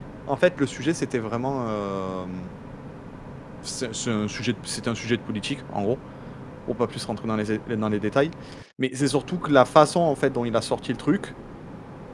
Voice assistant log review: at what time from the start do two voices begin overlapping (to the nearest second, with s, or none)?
none